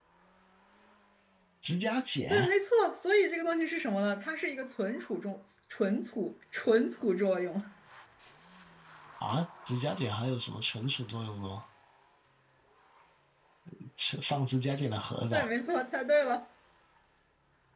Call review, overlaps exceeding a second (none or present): none